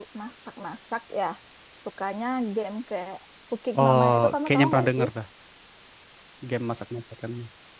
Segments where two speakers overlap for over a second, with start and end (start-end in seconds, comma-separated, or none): 3.8-5.1